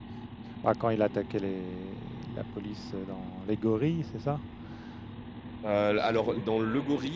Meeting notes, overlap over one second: none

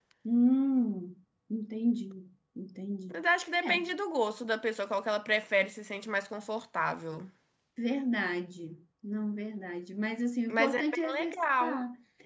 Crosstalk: present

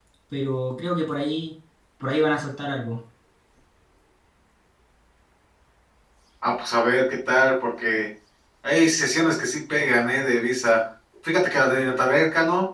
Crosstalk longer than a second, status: none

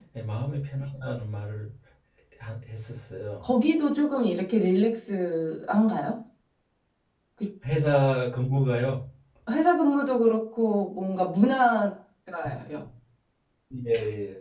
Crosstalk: none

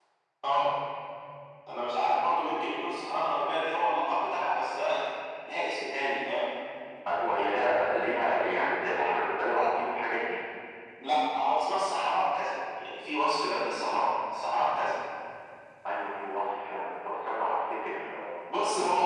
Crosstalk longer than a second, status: none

